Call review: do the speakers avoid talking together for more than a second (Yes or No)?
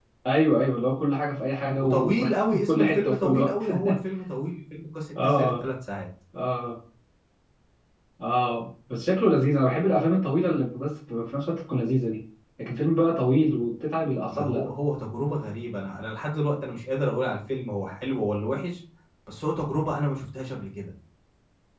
No